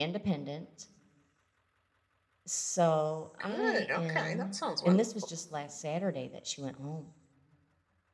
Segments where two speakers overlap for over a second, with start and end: 3.4-5.0

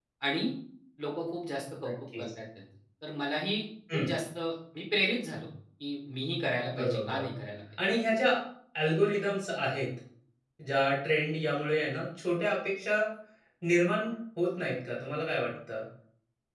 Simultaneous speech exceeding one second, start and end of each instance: none

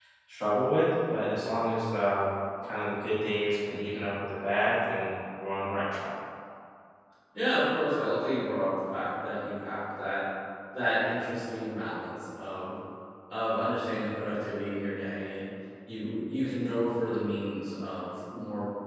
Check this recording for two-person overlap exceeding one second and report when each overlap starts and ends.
none

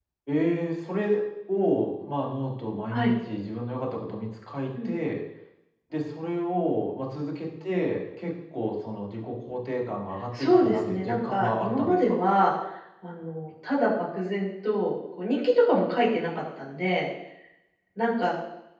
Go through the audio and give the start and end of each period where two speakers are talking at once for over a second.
10.4-12.2

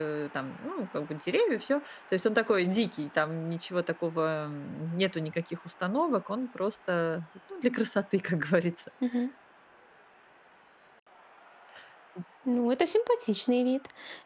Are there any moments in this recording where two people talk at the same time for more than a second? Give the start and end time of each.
none

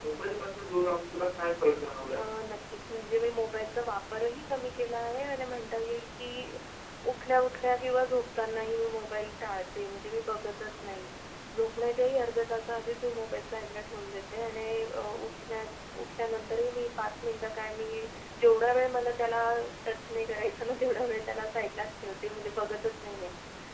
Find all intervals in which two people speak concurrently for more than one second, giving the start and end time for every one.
none

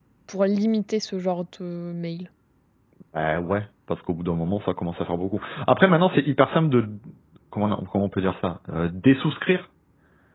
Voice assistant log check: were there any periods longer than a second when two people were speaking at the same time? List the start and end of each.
none

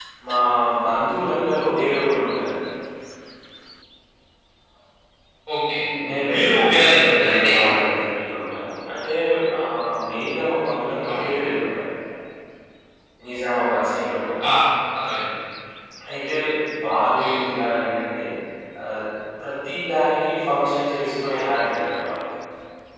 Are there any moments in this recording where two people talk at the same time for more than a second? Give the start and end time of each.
6.3-7.5

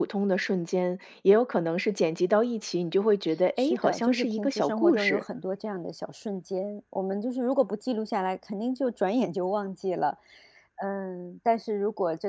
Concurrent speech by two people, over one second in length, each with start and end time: 3.6-5.2

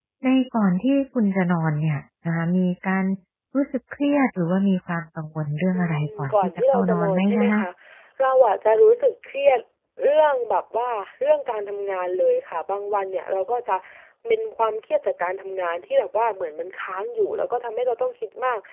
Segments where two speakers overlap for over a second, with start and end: 5.7-7.6

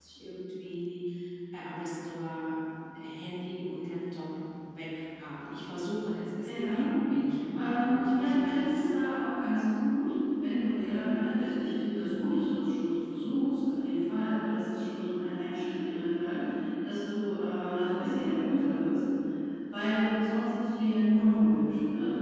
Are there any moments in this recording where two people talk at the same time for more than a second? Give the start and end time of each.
7.6-8.8

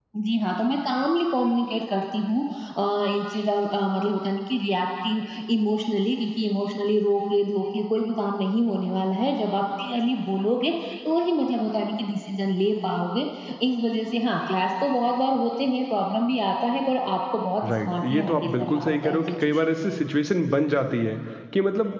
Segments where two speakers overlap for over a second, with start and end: 17.6-19.7

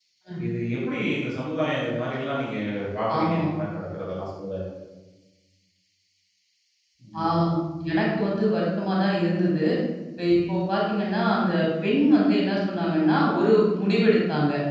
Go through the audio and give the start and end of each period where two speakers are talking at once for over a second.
none

